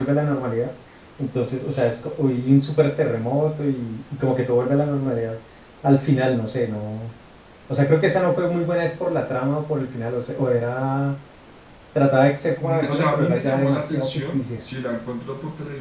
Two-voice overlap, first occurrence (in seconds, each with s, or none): 12.6 s